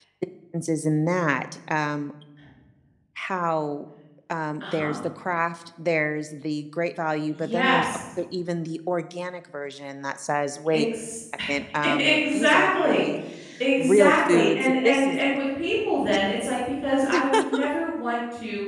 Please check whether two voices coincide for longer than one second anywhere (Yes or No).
Yes